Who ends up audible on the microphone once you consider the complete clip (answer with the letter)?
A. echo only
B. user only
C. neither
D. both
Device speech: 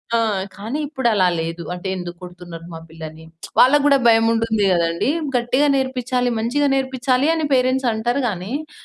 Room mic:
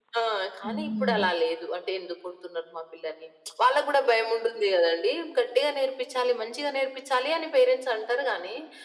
D